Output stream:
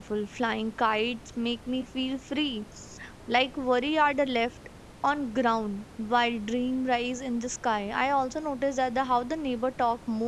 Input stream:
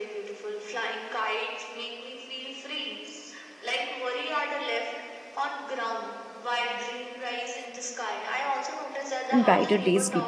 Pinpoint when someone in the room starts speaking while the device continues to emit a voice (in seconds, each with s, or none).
9.3 s